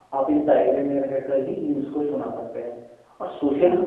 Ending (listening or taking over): listening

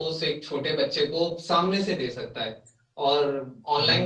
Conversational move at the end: listening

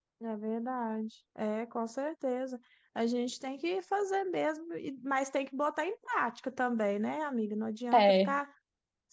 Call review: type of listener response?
listening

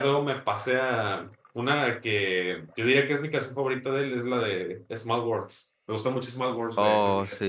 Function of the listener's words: taking over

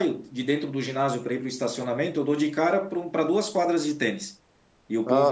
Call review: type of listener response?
listening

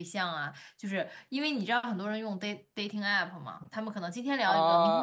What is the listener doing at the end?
taking over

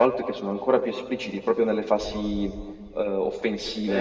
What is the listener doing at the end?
taking over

